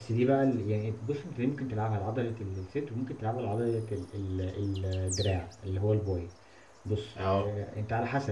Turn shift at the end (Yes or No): No